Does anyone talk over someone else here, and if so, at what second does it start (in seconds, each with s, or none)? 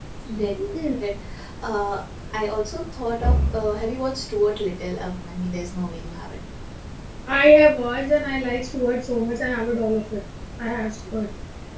none